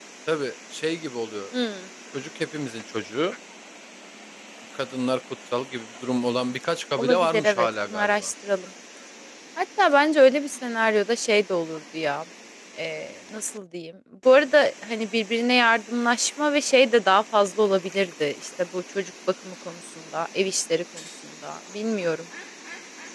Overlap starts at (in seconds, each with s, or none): 7.0 s